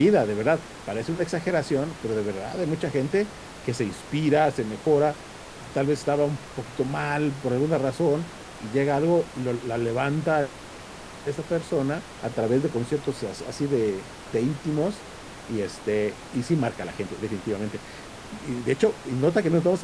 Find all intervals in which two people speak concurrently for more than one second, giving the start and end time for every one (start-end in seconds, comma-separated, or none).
none